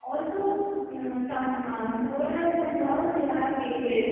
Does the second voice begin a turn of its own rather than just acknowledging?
Yes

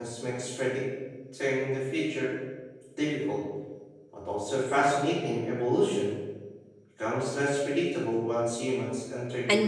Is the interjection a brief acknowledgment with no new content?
No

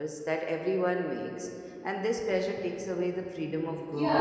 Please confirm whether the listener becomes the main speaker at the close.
Yes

